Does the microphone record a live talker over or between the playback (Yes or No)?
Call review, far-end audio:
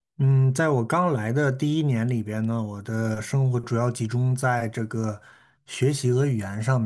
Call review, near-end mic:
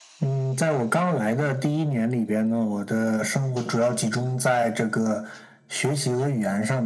No